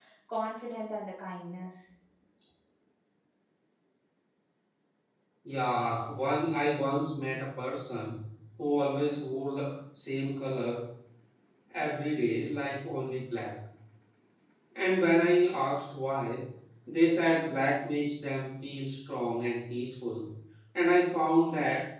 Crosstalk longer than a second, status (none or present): none